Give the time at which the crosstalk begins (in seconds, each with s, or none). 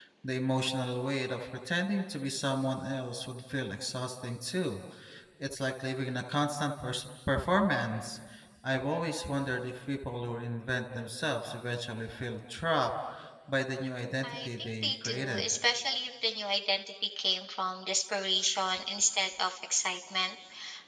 14.2 s